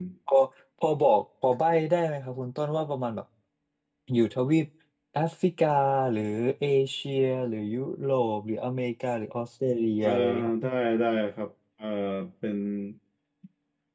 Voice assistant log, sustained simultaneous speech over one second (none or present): none